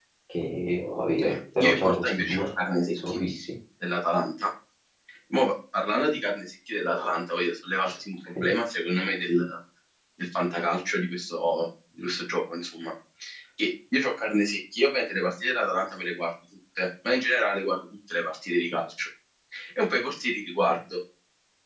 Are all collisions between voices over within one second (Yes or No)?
No